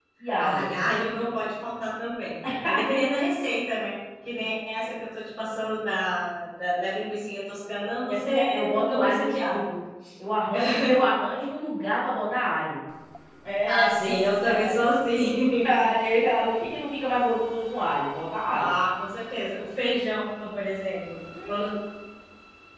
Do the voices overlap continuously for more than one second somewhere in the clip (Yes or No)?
Yes